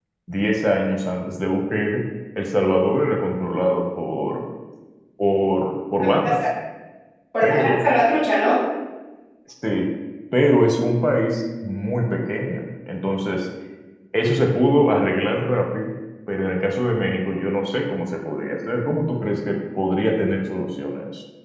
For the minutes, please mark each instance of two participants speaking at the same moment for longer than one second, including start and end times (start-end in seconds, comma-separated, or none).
none